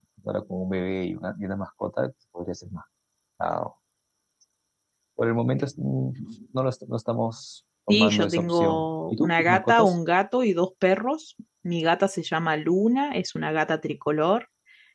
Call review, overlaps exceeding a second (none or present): present